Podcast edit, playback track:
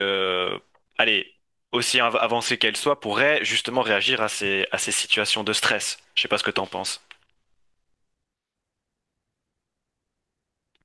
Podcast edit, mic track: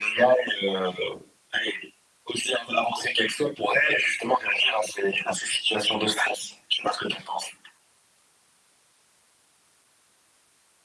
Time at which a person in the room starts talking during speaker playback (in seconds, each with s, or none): none